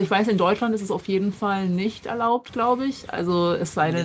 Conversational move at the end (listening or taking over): taking over